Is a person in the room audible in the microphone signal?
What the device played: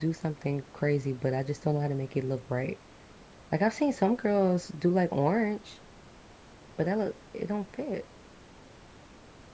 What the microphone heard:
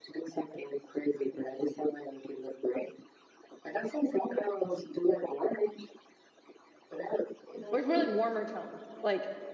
Yes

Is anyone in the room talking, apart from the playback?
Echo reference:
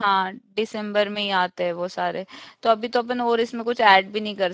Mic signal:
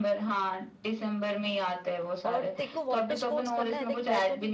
Yes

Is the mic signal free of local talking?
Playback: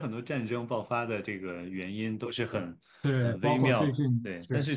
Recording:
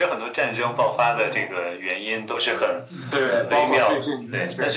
No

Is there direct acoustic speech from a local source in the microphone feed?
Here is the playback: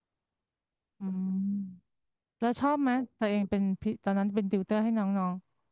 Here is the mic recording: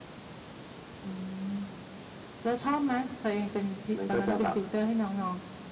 Yes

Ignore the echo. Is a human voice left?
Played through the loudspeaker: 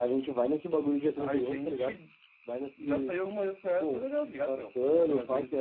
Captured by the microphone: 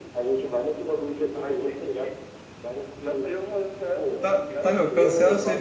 Yes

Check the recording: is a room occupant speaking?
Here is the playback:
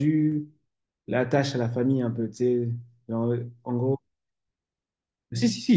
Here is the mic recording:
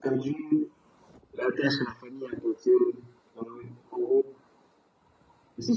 No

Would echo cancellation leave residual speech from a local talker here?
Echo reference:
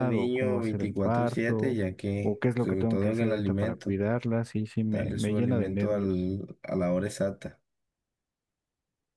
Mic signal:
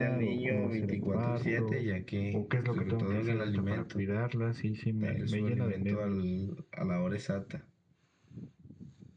No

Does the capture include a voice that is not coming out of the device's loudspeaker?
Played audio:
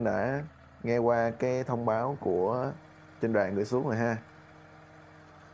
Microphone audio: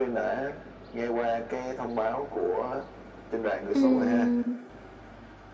Yes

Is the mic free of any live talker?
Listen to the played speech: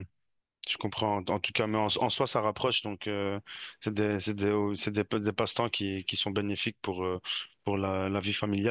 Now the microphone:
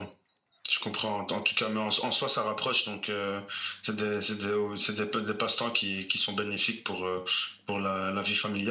Yes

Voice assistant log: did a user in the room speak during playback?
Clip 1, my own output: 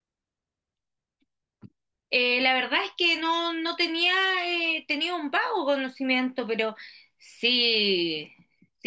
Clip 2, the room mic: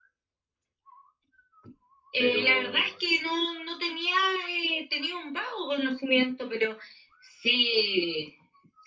Yes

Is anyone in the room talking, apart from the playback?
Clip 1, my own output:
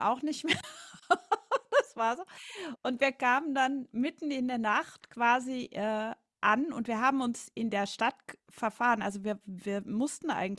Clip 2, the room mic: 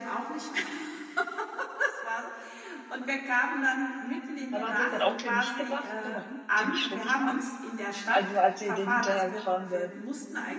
Yes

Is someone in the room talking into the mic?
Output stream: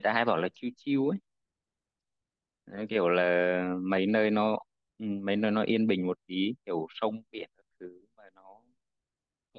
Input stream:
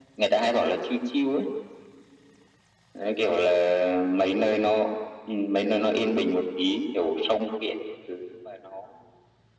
No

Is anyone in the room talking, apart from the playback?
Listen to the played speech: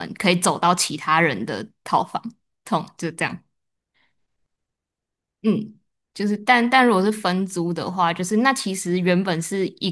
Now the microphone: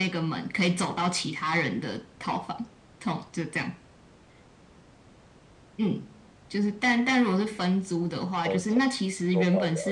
Yes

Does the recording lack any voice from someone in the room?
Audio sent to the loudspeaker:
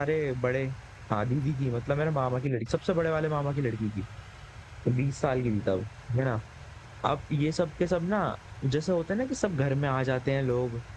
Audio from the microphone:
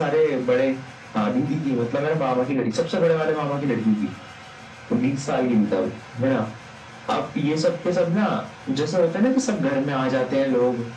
Yes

